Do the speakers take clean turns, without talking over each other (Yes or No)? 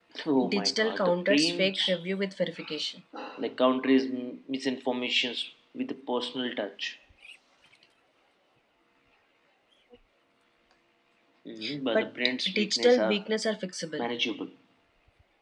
No